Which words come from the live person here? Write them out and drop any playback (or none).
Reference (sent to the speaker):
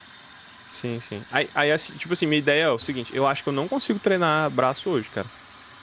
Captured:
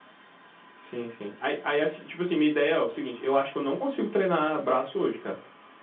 none